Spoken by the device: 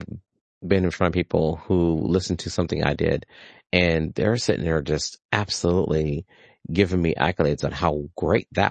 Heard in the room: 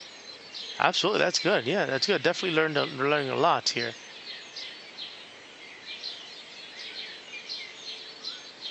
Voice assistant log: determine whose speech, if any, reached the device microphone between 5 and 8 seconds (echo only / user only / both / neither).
neither